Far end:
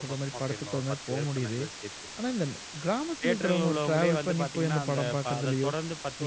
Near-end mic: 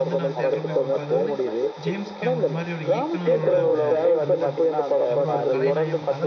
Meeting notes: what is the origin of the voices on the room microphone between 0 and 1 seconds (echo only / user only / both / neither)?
both